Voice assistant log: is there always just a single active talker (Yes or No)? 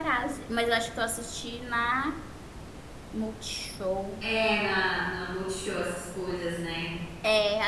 Yes